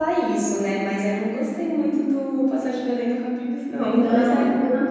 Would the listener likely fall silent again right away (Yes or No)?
No